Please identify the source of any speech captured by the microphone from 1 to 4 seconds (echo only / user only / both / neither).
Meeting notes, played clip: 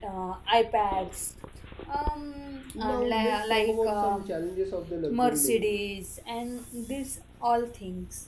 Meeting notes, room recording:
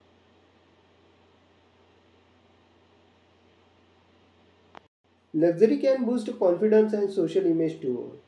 neither